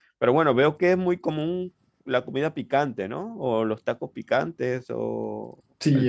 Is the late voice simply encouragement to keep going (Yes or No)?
No